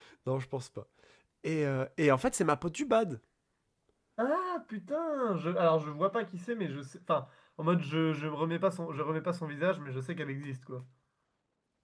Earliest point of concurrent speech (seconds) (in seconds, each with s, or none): none